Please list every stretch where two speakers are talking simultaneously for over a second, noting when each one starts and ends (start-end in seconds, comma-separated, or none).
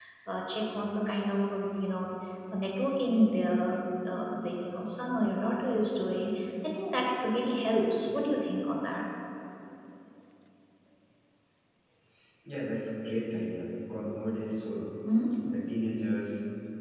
none